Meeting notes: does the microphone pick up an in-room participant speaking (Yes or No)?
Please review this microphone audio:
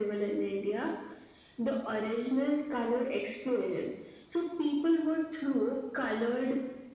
No